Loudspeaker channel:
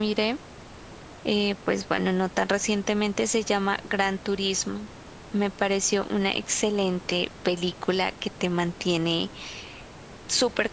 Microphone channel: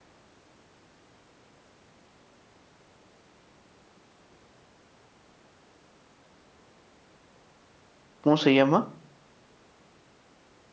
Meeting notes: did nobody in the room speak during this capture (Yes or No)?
No